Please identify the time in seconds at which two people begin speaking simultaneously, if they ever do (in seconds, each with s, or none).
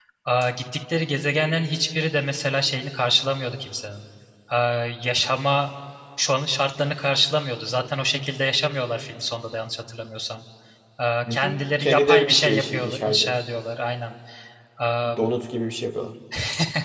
11.3 s